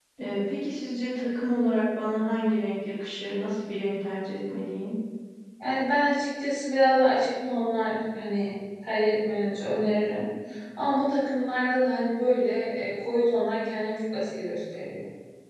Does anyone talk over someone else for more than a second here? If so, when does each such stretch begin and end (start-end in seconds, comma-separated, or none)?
none